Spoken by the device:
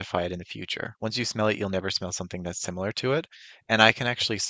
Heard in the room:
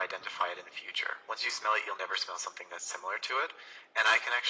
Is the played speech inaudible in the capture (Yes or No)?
No